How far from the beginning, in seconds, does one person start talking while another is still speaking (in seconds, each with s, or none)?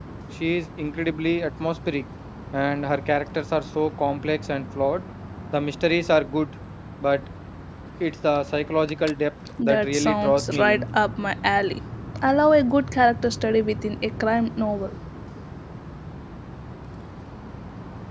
9.6 s